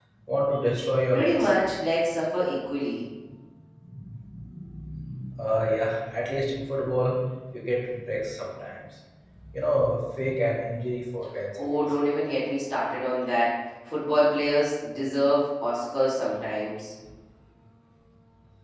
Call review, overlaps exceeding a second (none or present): none